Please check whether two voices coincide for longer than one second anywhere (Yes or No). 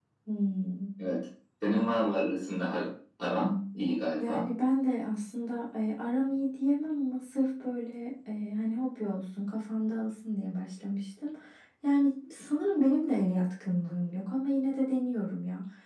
No